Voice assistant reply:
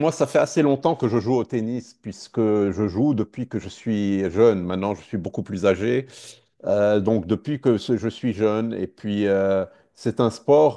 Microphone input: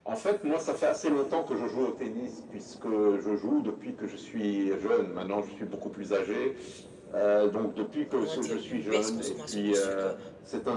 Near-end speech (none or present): present